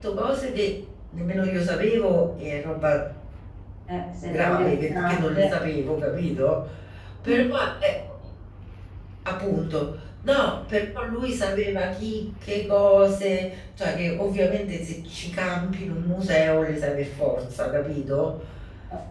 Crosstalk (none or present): present